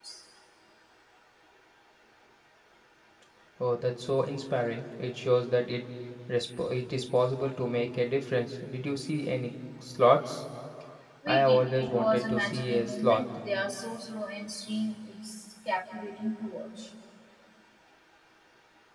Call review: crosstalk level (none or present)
present